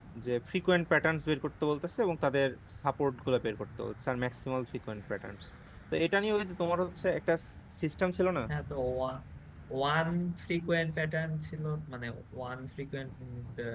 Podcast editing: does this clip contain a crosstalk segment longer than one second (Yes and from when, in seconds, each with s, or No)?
No